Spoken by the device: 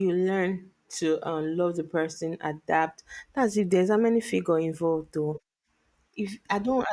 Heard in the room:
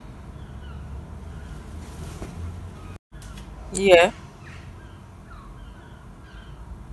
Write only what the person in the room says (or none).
yeah,